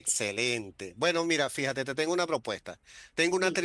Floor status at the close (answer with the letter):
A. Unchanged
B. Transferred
A